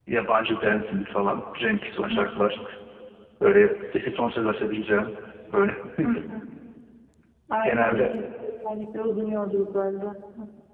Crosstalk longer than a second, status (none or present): none